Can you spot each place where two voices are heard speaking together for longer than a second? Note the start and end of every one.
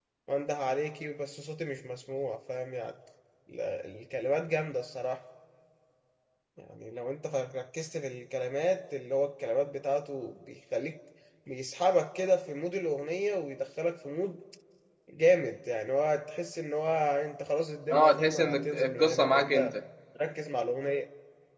17.9-19.8

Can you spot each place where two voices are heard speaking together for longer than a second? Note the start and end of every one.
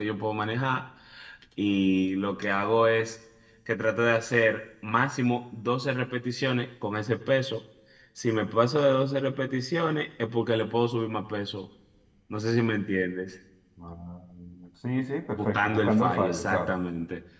15.3-16.8

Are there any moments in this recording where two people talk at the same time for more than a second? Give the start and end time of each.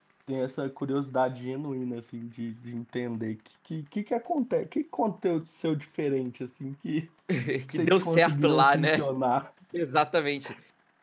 7.7-9.1

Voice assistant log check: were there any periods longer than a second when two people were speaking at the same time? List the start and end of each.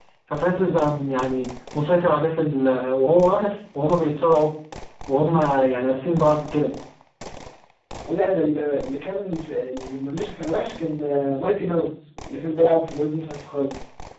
none

